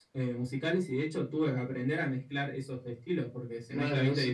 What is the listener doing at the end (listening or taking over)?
taking over